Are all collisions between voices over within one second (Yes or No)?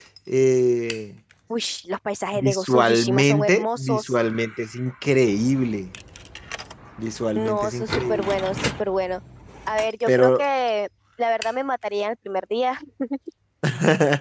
No